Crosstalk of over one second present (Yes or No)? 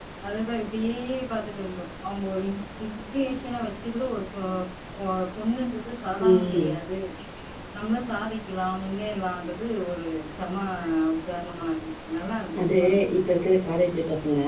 No